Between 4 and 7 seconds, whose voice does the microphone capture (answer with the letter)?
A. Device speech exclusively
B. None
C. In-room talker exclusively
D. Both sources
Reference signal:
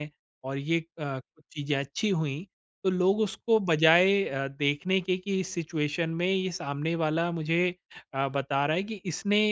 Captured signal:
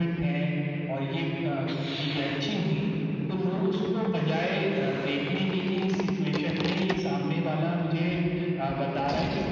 A